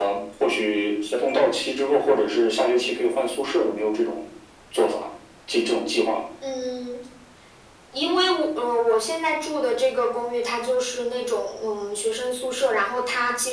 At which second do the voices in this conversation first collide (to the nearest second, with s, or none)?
none